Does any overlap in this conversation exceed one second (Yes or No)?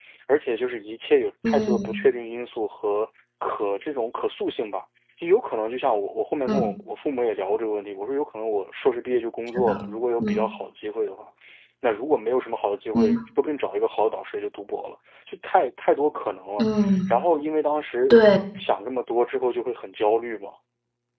No